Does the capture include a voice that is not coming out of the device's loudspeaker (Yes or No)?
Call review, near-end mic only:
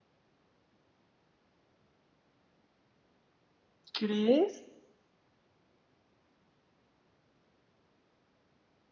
Yes